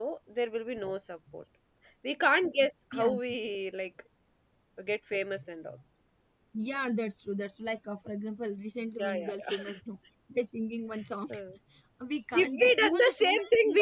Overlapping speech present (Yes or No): Yes